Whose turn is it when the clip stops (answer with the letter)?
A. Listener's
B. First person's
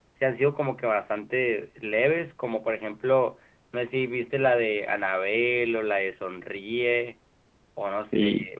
A